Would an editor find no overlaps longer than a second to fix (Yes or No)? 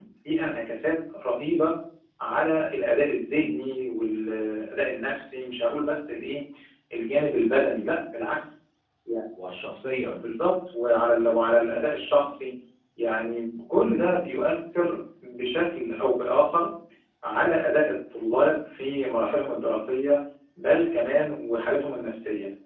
Yes